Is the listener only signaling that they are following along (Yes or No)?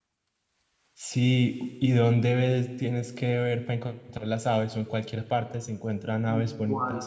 No